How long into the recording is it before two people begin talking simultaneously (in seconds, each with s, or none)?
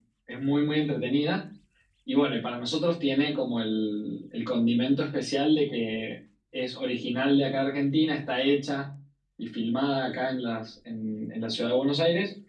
none